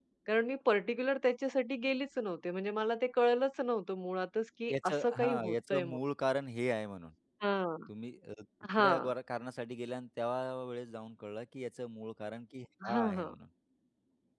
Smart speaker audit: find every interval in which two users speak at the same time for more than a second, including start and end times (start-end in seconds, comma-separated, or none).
4.7-6.0